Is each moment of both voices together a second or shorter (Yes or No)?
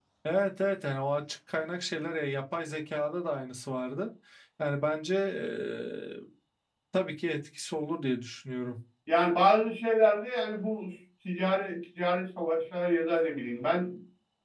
Yes